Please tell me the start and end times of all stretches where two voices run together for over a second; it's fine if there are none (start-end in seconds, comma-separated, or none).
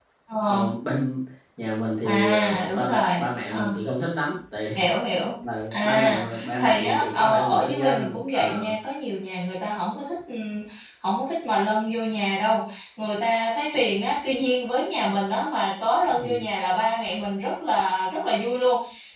2.0-3.7, 5.7-8.7